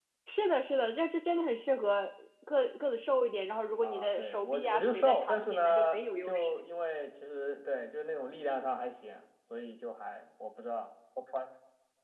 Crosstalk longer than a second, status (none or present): present